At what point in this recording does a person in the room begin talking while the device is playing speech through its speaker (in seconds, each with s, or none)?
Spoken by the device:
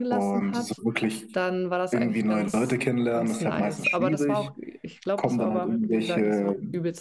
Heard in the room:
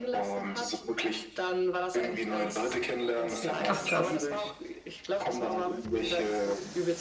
3.7 s